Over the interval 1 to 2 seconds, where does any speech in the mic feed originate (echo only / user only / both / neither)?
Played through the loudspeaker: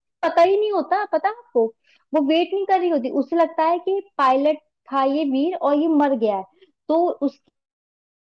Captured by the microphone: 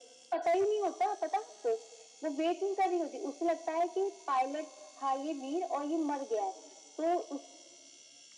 echo only